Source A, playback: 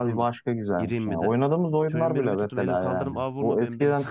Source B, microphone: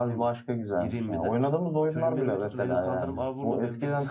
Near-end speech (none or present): none